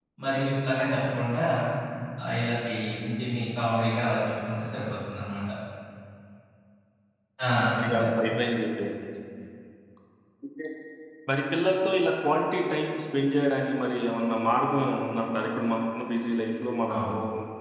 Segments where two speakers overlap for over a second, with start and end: none

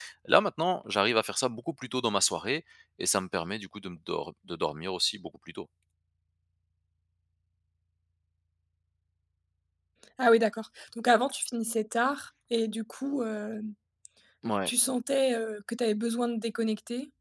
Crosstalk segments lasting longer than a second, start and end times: none

